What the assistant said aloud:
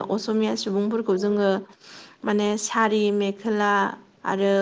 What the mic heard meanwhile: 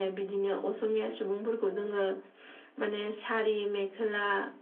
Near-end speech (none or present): none